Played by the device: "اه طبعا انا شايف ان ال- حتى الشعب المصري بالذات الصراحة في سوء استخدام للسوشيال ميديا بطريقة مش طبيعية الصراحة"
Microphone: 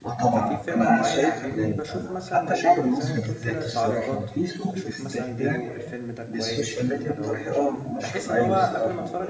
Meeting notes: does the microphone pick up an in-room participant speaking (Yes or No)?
Yes